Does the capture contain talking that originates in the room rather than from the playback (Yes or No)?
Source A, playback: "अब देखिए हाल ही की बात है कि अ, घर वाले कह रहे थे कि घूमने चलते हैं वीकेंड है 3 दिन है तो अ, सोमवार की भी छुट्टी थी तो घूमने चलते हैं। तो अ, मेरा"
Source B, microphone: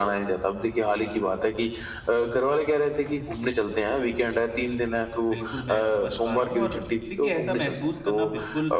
Yes